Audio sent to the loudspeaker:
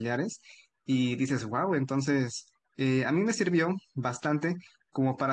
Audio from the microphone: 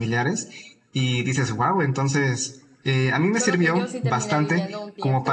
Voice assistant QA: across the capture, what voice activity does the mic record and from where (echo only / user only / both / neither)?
both